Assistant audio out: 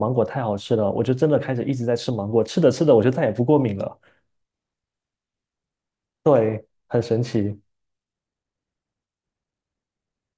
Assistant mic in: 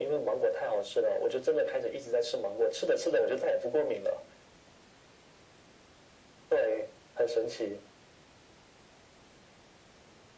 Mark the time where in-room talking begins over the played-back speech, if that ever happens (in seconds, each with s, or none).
none